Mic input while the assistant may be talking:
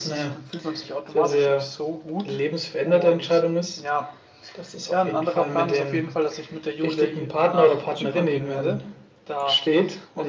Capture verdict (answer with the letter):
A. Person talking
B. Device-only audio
A